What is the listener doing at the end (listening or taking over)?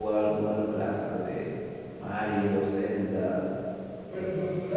taking over